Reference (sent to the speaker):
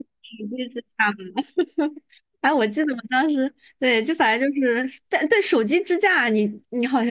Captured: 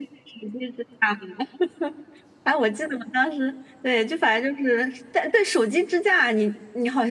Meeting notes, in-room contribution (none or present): none